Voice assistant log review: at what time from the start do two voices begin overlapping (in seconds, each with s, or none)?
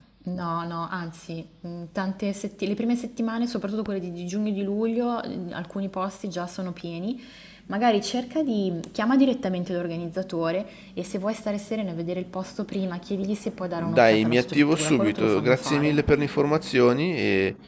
13.6 s